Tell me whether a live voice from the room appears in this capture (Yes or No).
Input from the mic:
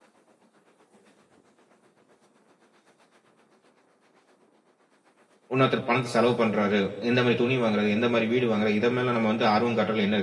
Yes